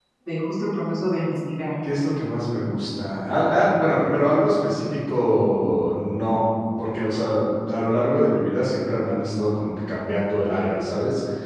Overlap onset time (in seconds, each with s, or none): none